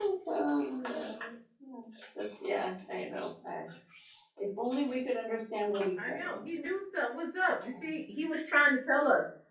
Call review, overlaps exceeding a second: none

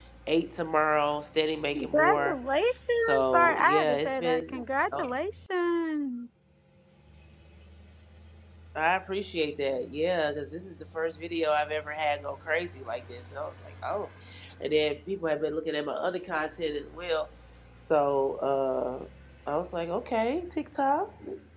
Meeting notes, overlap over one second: present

